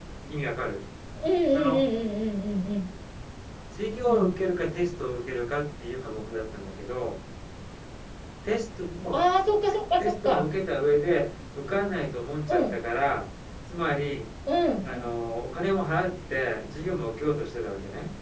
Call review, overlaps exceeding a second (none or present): none